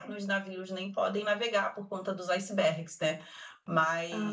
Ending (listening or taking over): listening